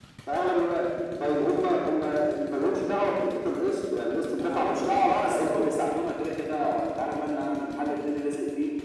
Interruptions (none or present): present